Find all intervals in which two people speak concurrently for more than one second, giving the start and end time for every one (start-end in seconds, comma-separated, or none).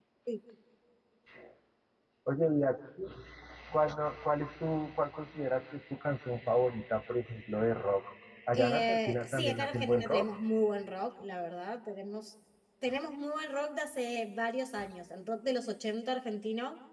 8.5-10.3